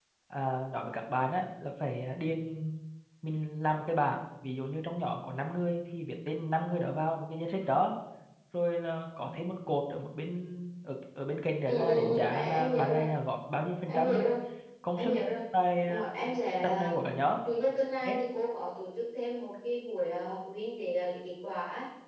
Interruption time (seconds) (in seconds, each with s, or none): 11.7 s